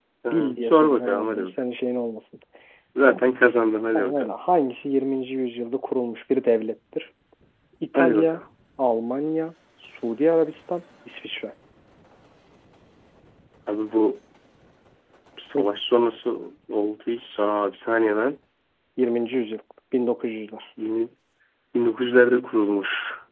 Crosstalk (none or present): present